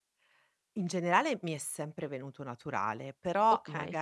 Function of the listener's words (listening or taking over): listening